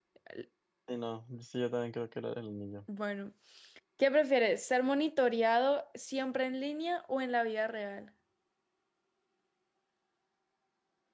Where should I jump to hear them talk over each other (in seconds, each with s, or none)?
none